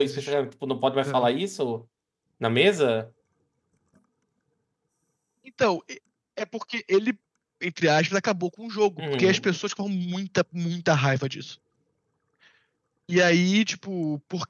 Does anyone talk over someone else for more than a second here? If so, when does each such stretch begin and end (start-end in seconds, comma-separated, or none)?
none